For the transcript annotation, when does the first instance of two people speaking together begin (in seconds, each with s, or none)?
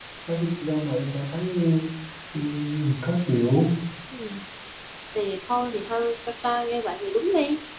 none